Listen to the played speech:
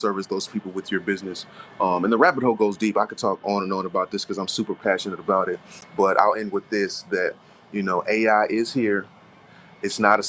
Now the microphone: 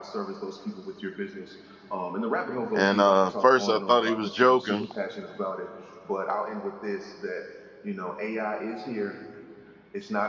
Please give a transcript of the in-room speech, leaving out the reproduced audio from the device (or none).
And uh, first I thought he was joking,